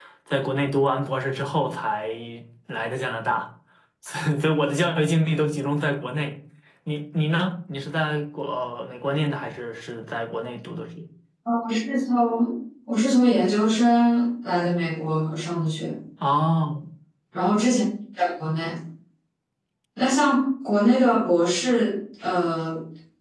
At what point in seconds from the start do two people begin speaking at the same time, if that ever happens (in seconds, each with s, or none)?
none